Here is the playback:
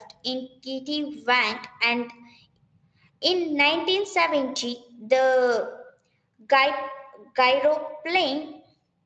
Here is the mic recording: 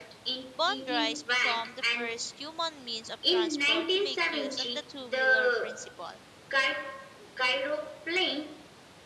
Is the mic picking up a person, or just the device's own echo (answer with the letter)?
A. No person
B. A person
B